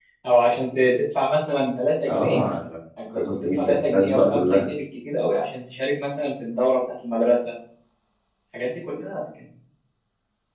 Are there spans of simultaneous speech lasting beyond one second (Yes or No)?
Yes